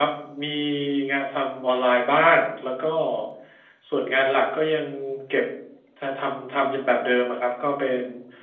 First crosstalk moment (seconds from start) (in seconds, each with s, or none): none